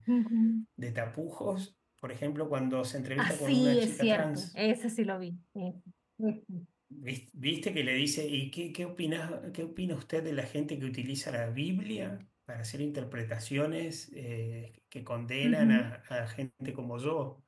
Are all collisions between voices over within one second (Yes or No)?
No